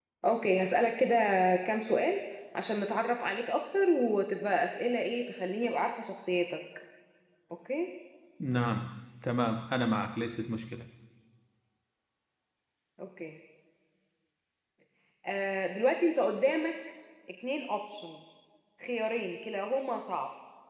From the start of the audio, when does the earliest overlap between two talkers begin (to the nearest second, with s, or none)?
none